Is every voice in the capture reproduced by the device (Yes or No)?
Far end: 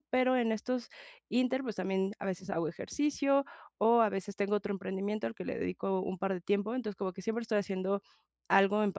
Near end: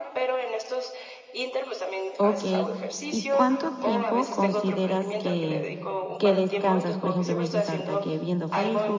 No